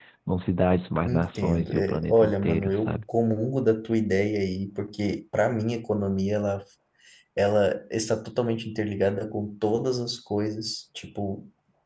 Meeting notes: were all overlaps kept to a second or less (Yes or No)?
No